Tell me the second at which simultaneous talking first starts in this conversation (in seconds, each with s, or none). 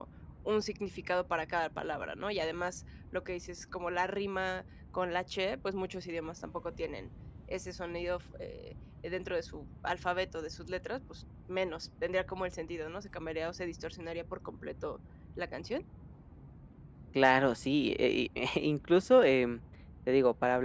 none